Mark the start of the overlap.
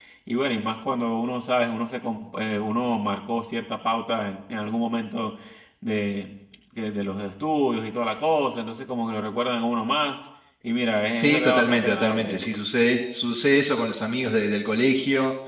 11.1 s

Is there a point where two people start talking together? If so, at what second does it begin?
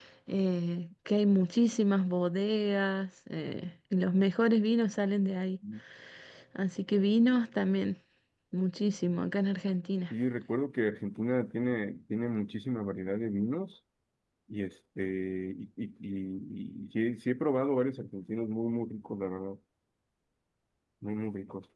none

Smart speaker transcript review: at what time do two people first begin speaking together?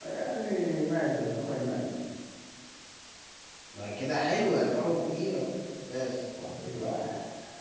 none

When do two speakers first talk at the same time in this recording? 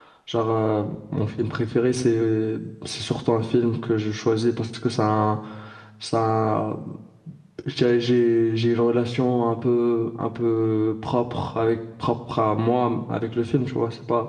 none

